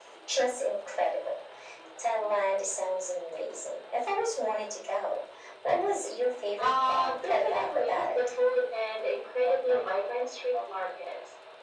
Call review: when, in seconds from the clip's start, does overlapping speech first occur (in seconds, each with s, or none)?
6.6 s